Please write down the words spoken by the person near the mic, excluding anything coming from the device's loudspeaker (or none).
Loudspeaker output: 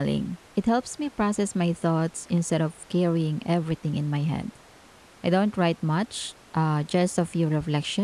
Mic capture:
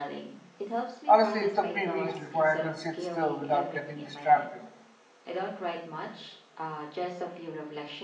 Honestly, it took me weeks before I could sit still without getting distracted.